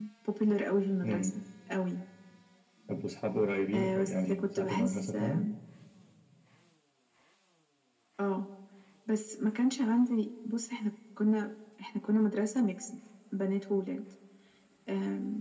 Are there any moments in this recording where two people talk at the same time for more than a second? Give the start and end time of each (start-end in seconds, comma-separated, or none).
3.7-5.4